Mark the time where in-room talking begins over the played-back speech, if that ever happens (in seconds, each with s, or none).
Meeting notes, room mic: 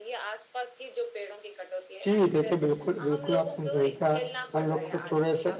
2.0 s